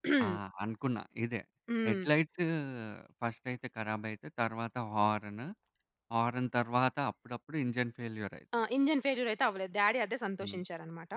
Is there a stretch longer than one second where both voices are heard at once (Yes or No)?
No